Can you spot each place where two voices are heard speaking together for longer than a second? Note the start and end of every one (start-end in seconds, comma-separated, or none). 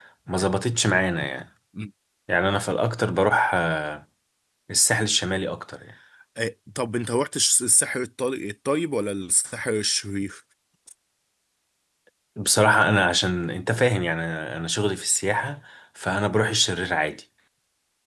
none